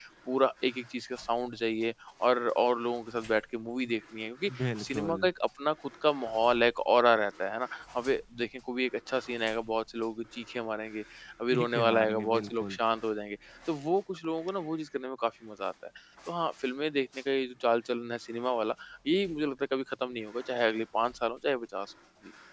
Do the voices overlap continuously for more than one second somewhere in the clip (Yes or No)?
Yes